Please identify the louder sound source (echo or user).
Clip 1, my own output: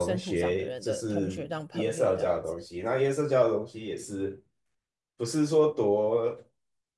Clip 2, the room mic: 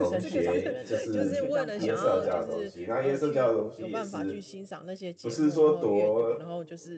echo